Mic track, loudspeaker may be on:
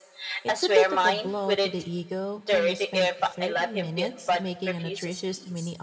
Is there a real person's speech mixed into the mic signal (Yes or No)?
Yes